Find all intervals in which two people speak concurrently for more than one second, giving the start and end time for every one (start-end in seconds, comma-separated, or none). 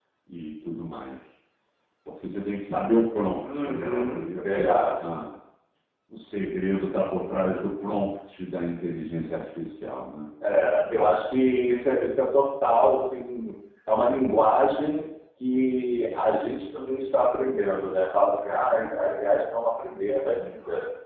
3.4-5.0